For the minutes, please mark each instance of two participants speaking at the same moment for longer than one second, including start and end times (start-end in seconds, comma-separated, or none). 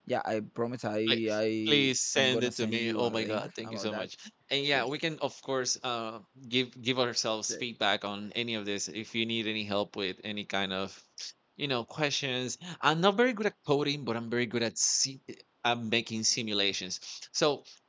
1.7-4.1